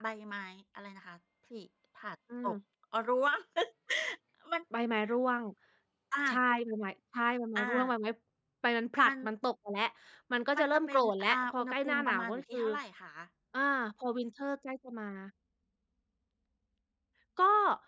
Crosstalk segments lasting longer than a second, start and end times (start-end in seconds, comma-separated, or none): 10.6-12.6